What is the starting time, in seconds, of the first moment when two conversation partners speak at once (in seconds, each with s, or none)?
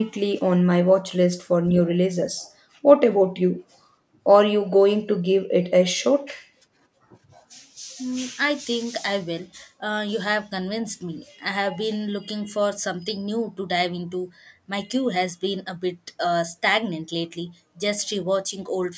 none